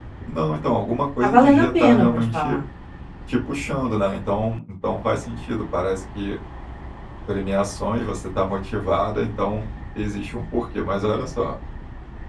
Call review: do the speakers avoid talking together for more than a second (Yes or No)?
No